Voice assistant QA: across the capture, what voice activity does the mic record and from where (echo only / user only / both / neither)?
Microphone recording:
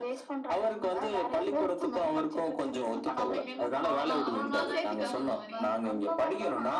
both